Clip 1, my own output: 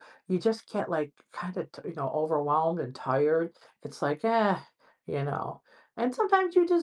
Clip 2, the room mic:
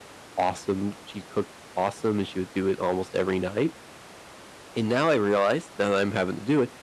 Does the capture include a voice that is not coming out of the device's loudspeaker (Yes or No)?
Yes